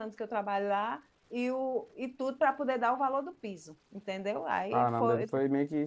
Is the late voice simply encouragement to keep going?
No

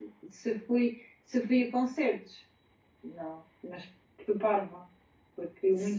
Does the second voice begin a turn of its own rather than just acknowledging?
No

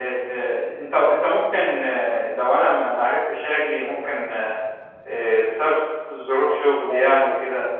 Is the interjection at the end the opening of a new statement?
No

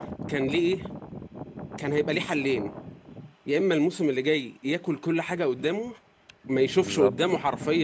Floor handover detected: No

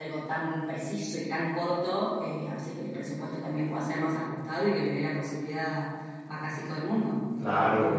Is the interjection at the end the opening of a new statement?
Yes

